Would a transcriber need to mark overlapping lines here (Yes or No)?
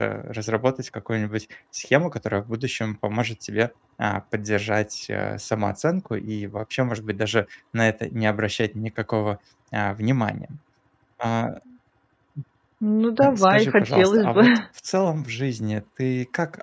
Yes